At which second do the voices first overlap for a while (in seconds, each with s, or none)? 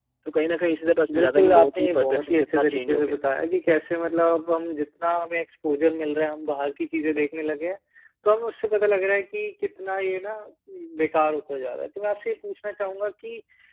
1.1 s